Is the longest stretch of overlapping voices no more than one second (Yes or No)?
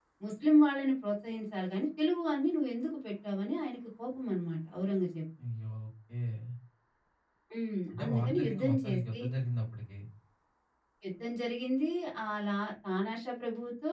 No